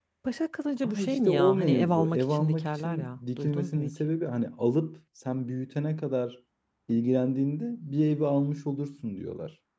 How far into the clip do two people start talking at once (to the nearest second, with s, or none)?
1 s